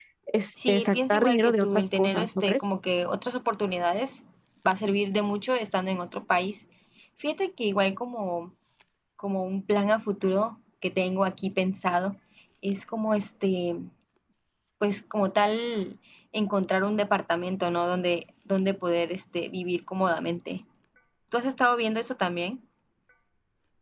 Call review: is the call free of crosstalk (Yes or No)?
No